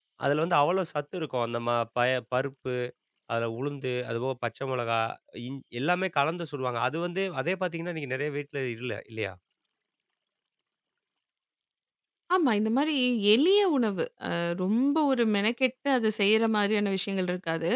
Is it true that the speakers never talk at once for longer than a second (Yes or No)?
Yes